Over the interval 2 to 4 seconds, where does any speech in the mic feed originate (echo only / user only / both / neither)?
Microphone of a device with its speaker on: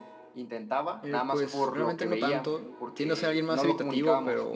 both